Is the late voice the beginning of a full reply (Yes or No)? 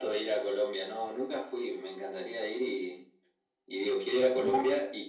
No